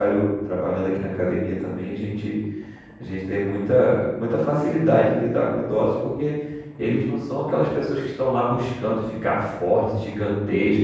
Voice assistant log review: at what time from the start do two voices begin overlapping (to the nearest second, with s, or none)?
none